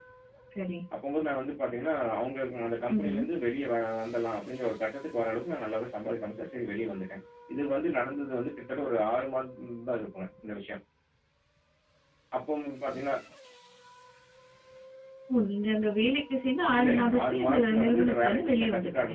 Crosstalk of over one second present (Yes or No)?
Yes